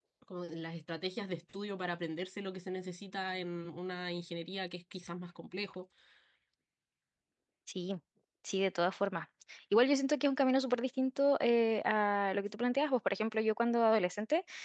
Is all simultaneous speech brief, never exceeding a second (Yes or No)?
Yes